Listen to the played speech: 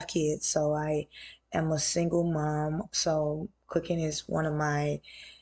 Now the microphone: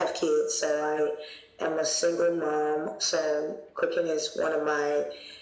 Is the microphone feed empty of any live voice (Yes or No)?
Yes